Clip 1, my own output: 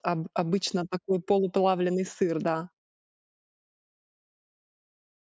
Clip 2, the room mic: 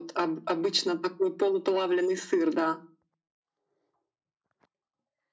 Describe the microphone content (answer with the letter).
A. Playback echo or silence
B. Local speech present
A